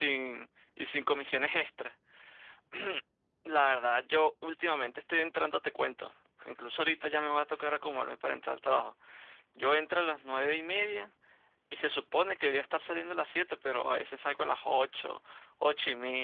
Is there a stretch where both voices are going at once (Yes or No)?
No